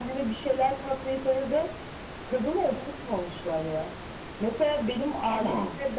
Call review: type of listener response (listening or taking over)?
listening